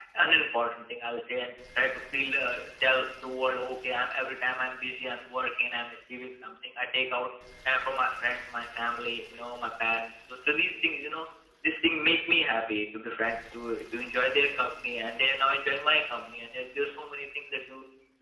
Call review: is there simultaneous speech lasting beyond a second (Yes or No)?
No